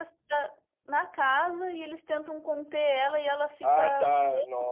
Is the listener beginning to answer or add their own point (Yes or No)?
Yes